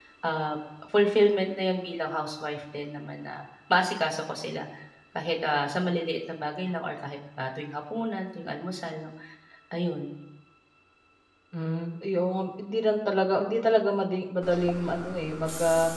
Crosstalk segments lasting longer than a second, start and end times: none

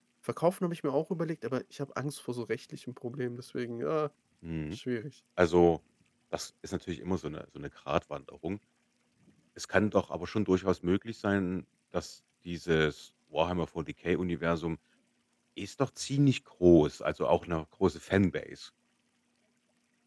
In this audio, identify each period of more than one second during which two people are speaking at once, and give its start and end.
none

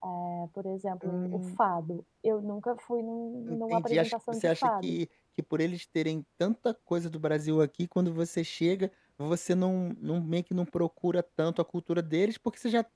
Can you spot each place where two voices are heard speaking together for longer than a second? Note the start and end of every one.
3.5-5.0

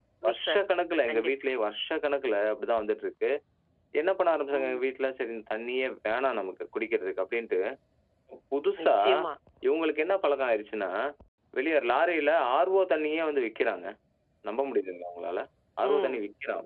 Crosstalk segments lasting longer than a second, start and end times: none

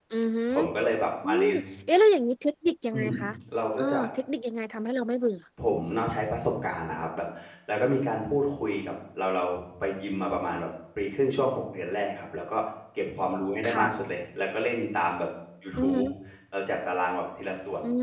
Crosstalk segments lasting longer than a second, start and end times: none

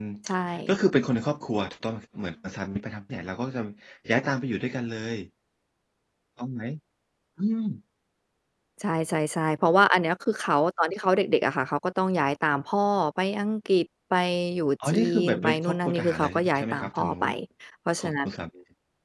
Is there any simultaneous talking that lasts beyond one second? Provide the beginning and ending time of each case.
14.8-17.2

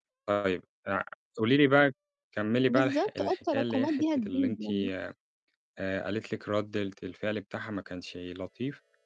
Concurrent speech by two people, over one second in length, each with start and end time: 2.6-4.6

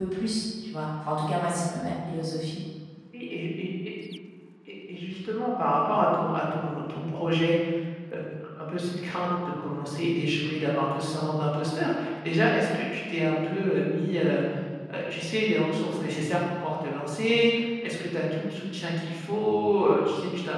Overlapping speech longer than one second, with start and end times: none

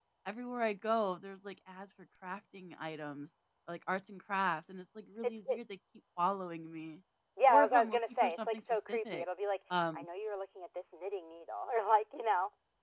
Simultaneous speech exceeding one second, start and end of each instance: 7.5-9.2

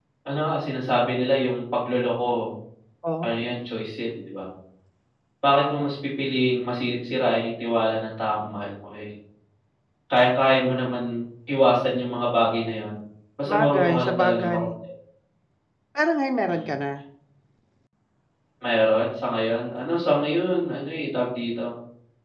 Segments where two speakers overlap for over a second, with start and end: 13.4-14.7

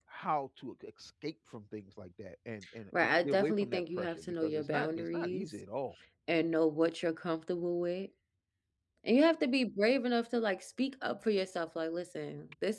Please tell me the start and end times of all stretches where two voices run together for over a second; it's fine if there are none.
3.0-5.5

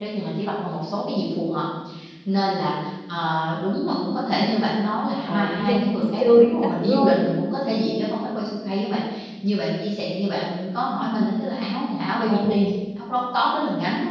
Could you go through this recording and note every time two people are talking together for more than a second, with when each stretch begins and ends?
5.3-7.2

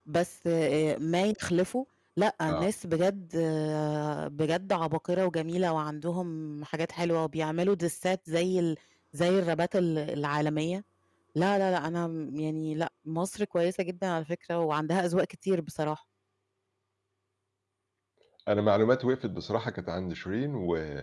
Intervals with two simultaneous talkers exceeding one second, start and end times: none

